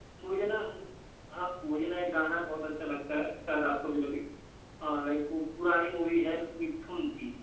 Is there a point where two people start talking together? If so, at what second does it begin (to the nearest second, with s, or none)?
none